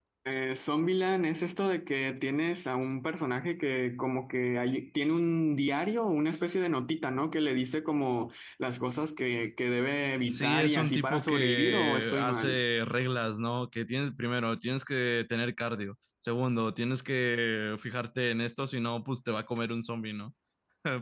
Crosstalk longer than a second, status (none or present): present